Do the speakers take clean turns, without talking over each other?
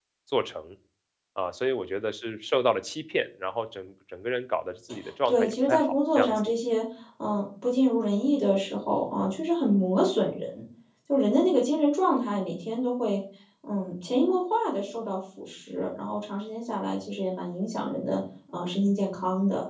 No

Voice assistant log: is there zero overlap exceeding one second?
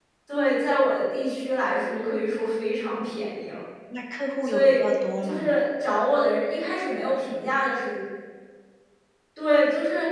Yes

